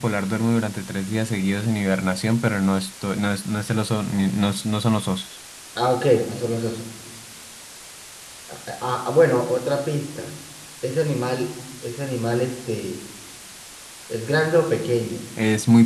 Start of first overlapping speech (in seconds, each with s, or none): none